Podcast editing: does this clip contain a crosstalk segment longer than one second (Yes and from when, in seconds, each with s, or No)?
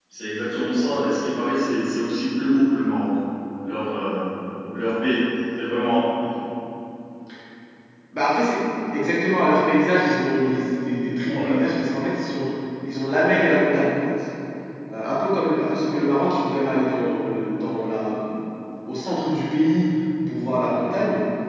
No